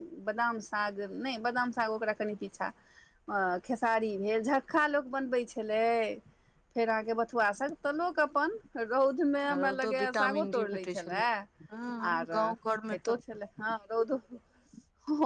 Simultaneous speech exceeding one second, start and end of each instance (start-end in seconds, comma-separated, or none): 9.5-11.2